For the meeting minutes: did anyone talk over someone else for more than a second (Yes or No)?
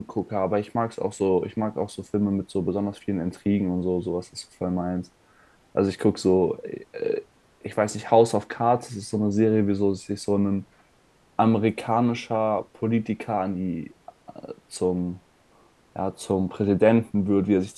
No